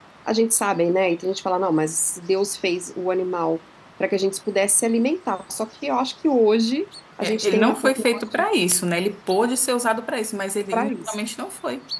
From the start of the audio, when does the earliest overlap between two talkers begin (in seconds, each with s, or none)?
7.2 s